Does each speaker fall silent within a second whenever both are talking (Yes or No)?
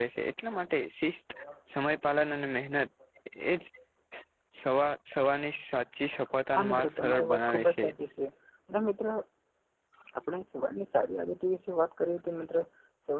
No